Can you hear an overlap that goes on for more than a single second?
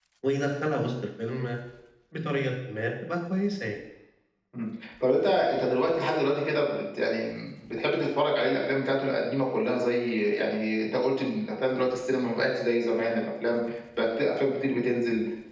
No

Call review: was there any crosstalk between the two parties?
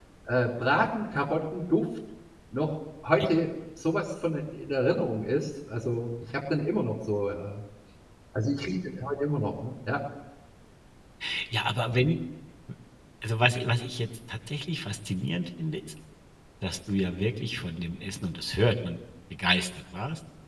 No

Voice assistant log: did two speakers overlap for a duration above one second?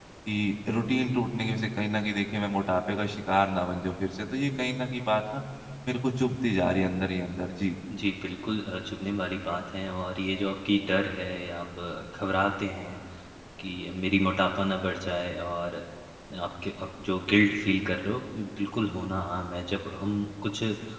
No

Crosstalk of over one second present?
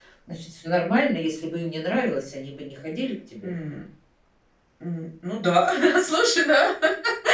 No

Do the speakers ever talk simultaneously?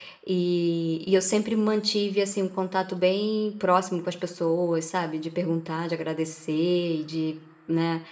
No

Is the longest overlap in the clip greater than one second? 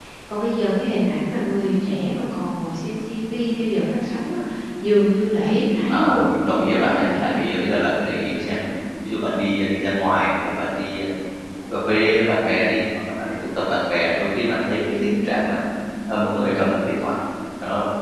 Yes, from 5.9 s

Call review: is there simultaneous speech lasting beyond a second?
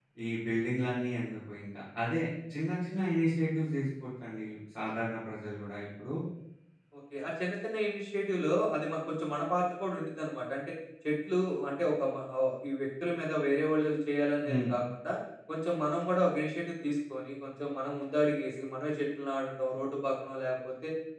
No

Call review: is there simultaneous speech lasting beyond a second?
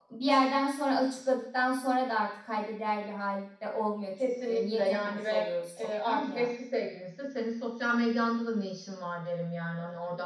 Yes, from 4.2 s

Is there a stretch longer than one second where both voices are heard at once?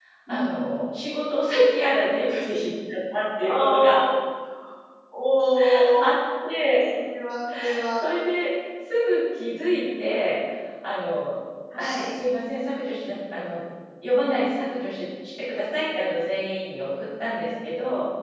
No

